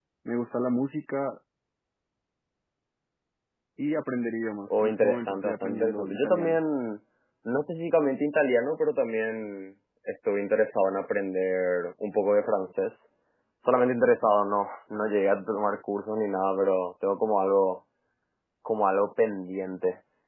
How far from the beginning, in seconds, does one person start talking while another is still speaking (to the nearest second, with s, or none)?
5 s